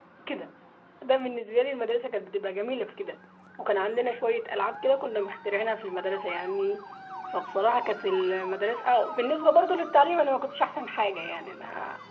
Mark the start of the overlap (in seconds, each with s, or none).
none